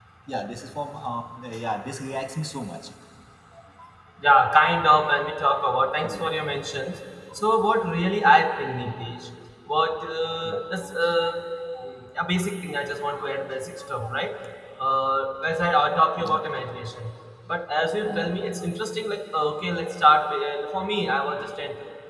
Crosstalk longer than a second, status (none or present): none